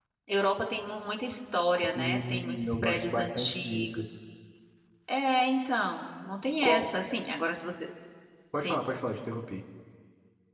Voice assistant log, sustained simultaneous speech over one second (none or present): present